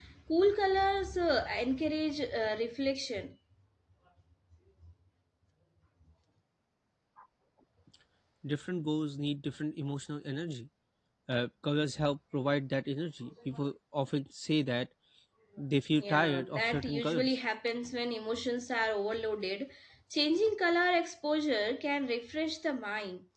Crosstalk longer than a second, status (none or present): present